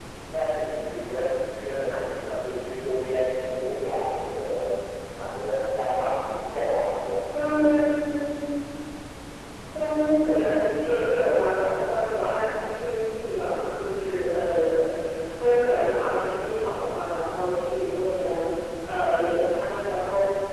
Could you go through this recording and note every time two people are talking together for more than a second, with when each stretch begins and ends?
none

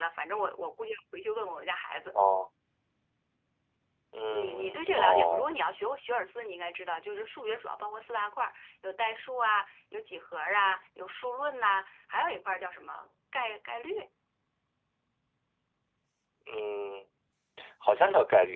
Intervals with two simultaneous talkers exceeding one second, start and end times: 4.3-5.5

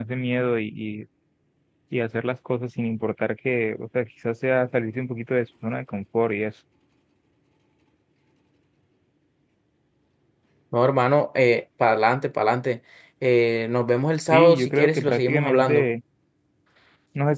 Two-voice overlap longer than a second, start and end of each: 14.3-15.9

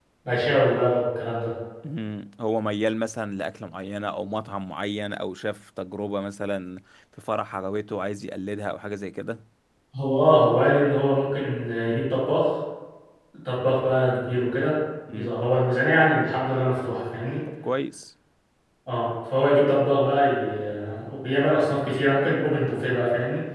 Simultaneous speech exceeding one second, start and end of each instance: none

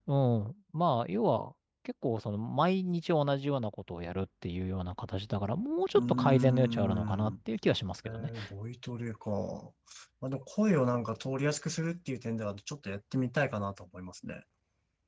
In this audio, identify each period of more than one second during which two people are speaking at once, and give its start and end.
5.9-7.3

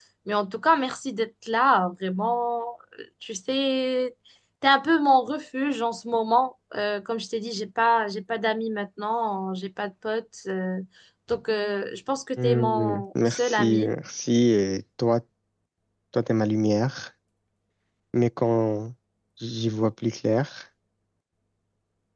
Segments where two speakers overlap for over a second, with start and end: 12.4-13.9

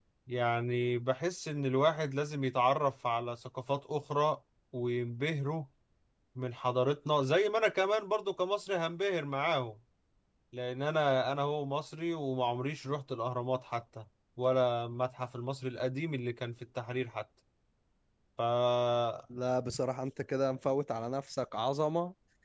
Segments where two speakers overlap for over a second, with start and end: none

